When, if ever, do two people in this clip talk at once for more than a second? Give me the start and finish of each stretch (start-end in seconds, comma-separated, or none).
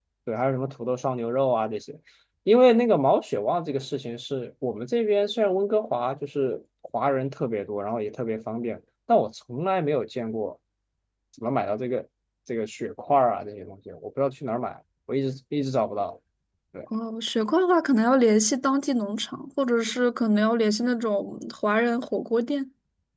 none